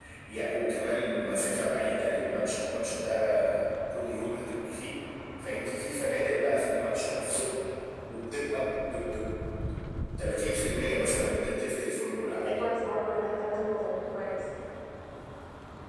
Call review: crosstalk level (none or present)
none